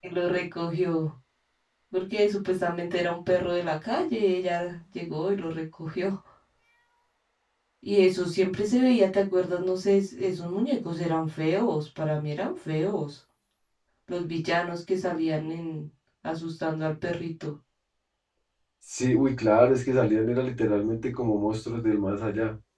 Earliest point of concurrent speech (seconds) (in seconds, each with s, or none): none